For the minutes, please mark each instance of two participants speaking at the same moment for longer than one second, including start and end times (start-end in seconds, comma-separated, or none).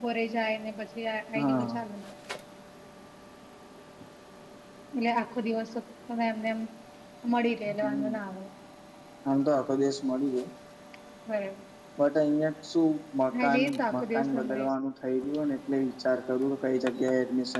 13.4-14.6